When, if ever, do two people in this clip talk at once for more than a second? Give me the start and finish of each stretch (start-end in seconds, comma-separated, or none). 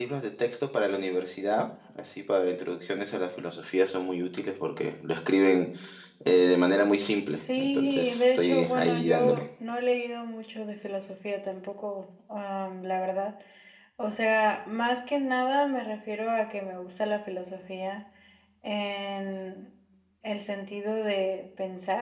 7.6-9.4